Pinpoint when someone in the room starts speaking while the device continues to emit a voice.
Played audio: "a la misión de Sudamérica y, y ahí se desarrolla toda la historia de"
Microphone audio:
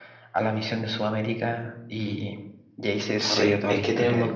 3 s

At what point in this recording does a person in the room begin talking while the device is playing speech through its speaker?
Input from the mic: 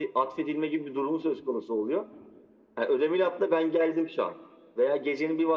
none

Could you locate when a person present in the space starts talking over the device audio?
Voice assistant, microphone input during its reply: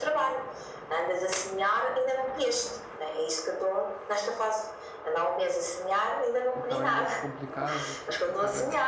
7 s

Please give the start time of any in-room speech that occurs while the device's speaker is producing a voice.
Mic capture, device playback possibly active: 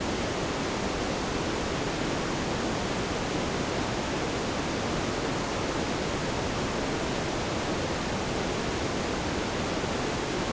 none

